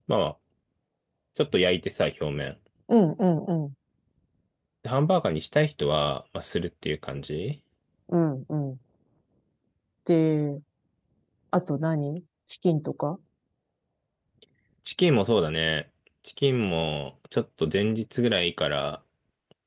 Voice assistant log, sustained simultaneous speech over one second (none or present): none